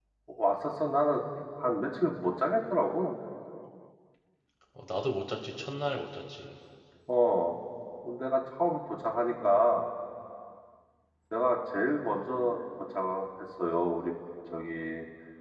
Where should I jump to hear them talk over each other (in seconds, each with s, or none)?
none